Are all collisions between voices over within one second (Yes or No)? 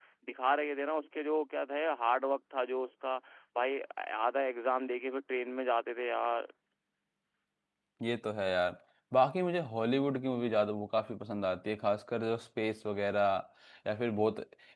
Yes